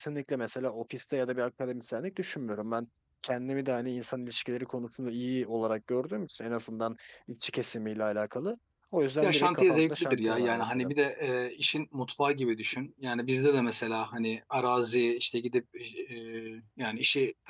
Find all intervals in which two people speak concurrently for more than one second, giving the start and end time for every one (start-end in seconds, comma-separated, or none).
9.2-10.9